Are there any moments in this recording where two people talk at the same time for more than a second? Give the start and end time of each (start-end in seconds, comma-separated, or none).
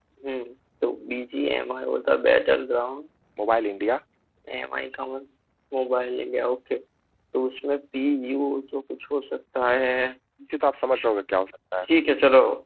none